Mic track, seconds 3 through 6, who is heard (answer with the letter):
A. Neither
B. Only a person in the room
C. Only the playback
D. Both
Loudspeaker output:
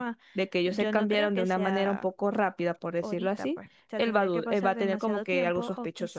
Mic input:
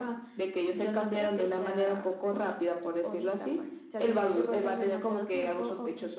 C